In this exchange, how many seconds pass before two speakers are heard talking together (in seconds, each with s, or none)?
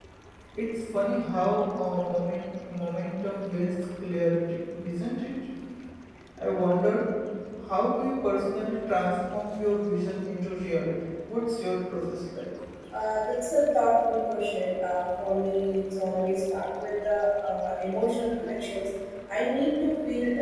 none